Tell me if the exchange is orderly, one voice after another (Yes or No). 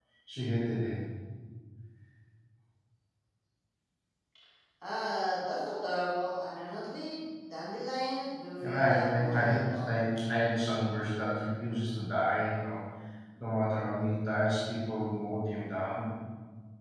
No